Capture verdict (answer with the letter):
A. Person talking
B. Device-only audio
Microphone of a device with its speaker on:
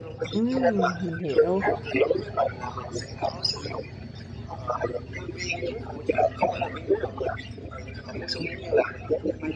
A